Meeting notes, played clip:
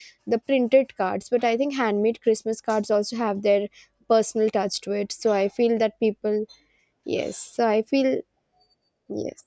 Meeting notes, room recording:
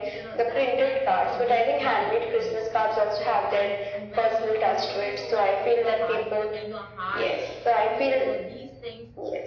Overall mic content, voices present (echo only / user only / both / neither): both